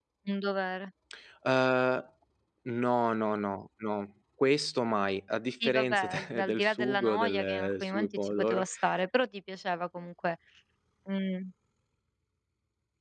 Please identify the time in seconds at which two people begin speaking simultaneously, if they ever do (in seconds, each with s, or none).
5.6 s